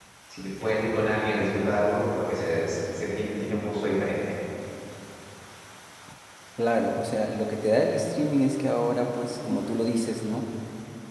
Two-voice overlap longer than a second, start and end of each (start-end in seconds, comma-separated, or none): none